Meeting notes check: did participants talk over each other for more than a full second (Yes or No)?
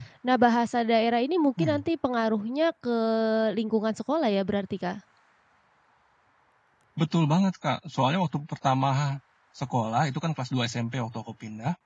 No